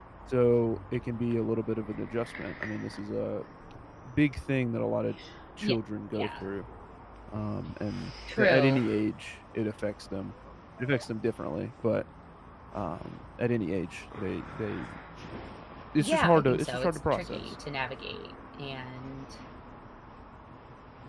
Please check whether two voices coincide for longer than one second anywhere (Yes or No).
Yes